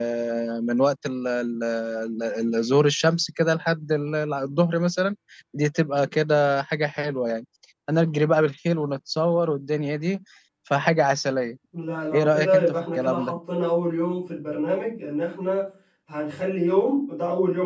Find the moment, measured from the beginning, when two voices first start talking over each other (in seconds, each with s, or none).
12.1 s